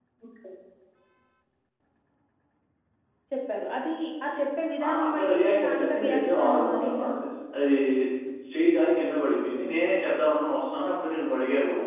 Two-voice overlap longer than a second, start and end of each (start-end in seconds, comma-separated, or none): 4.8-7.0